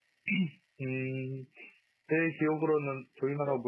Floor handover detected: No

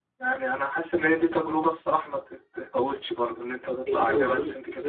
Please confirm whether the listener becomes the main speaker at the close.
Yes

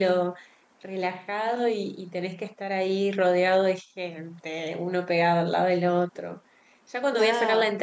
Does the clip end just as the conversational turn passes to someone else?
No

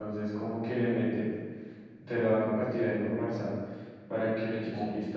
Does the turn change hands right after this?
Yes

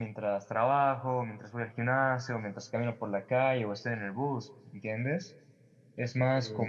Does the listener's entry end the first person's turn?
No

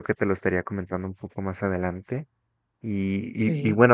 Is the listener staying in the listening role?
Yes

